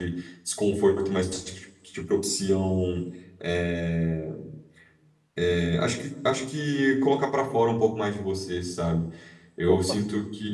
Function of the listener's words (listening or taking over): listening